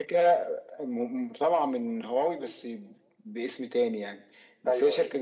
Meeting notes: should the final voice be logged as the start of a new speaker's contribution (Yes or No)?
No